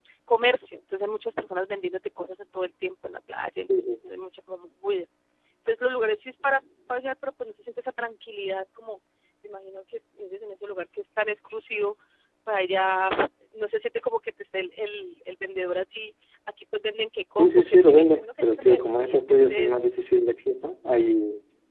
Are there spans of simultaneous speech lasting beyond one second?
Yes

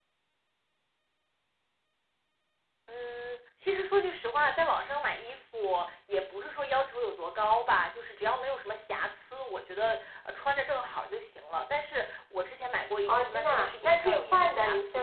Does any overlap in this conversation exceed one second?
Yes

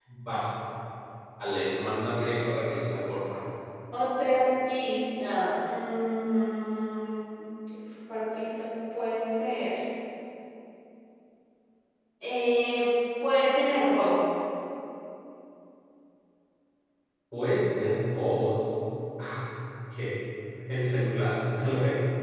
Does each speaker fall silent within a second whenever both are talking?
Yes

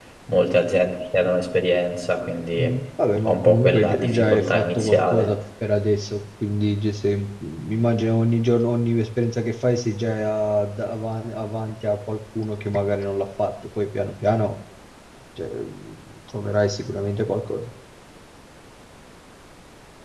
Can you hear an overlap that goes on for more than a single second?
Yes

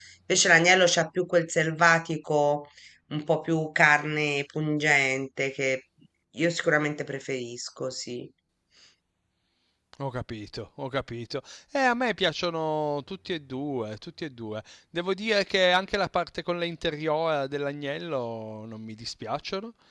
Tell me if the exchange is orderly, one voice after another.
Yes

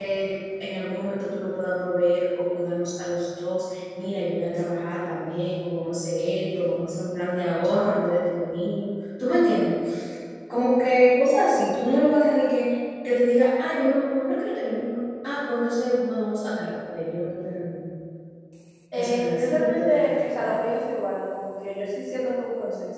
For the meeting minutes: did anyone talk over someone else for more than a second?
Yes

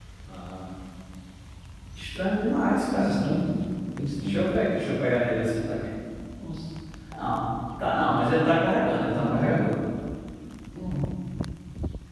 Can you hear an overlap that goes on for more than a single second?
No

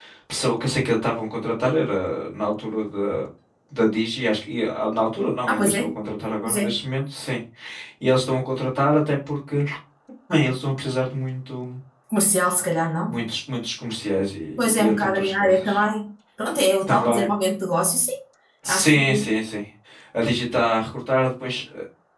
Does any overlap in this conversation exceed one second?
Yes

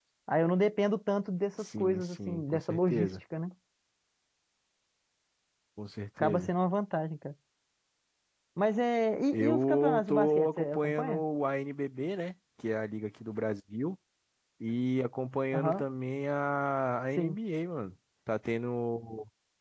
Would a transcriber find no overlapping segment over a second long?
No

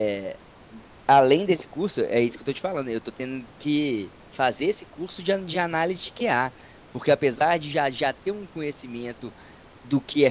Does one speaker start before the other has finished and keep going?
No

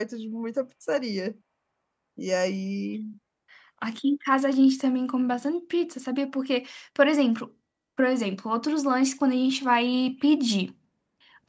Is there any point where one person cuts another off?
No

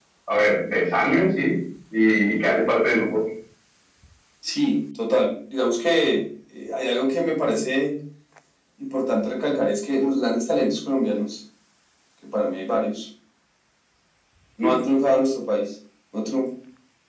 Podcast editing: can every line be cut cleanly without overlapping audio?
Yes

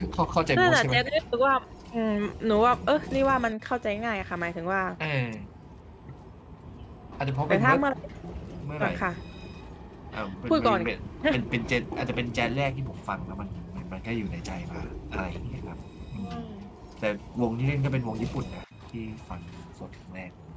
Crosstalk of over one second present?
No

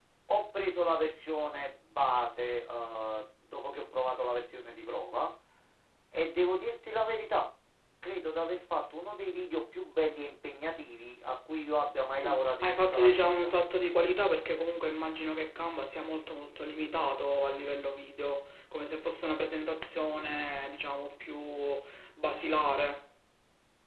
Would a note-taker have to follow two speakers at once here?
Yes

